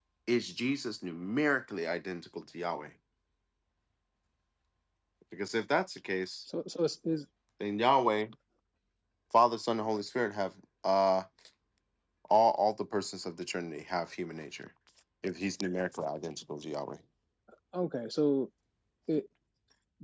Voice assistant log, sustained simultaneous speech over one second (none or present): none